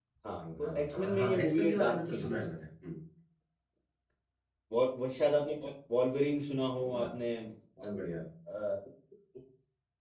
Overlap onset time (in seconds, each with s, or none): 0.6 s